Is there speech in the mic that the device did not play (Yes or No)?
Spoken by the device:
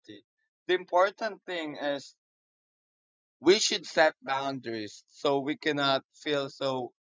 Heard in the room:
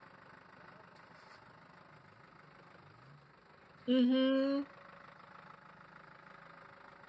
Yes